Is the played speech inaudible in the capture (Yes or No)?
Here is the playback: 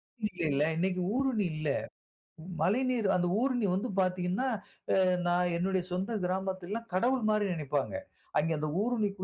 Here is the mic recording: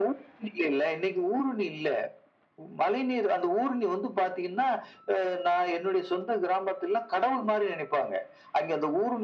No